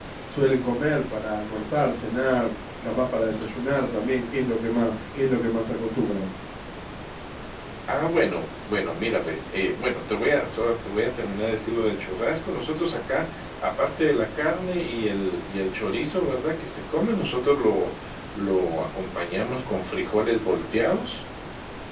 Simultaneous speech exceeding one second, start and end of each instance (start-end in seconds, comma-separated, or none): none